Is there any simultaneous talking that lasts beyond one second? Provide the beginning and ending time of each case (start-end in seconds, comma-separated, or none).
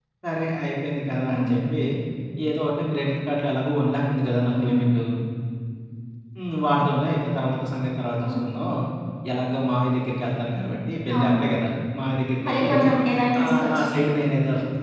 none